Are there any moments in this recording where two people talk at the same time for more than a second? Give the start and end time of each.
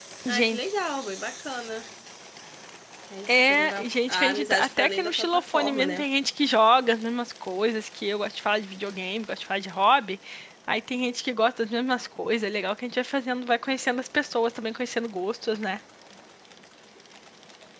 3.3-6.0

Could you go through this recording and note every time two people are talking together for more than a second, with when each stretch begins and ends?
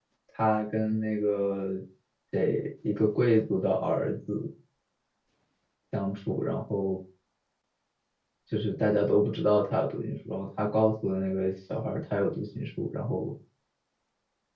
none

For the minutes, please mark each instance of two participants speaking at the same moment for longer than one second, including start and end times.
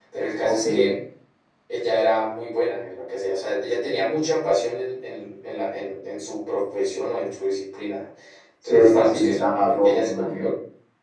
8.7-10.5

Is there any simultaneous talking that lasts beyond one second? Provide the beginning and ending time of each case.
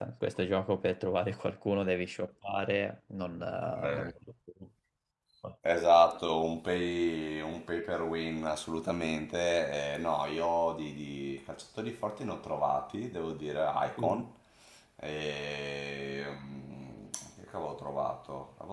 none

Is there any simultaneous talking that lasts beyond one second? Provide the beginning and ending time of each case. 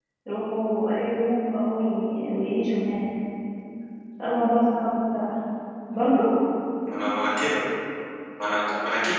none

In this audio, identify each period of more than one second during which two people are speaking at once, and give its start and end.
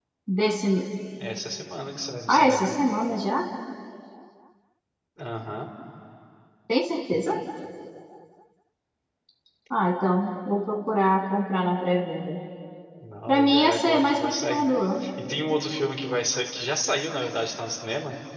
13.3-14.7

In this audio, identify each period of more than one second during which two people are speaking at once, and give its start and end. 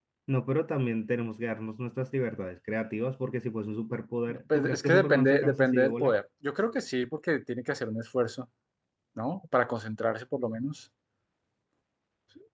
4.5-6.2

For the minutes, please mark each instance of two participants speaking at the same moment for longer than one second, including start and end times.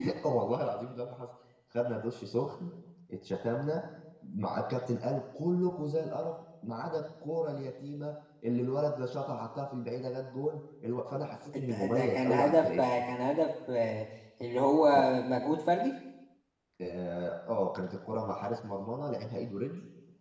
11.6-12.8

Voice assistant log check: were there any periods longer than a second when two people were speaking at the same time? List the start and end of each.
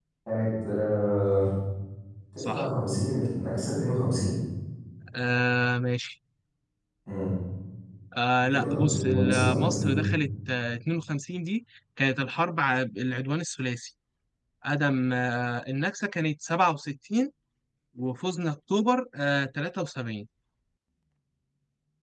8.4-10.0

